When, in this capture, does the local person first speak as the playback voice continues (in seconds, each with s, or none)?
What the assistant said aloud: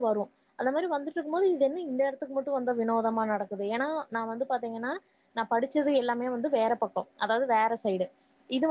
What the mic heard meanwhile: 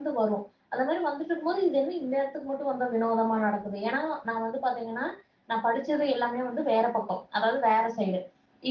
none